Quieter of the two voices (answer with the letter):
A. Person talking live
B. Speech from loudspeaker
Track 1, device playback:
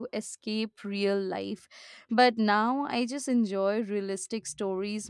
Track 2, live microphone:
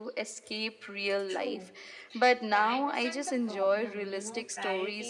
A